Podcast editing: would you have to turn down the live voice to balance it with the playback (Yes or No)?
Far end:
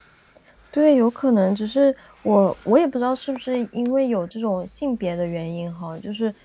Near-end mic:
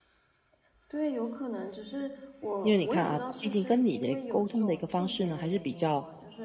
Yes